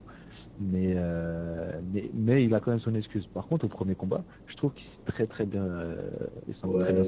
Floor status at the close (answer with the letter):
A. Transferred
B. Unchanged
A